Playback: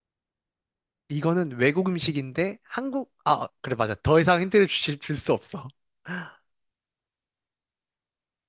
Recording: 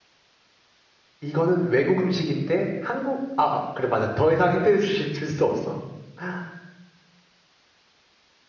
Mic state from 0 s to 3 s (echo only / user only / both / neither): echo only